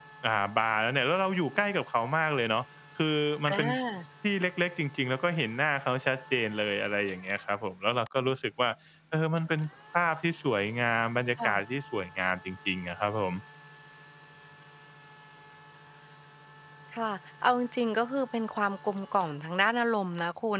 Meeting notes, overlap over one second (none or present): none